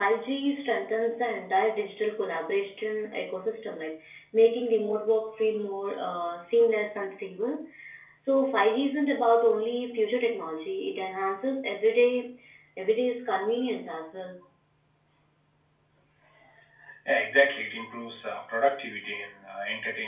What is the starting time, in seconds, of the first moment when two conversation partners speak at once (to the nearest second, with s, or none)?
none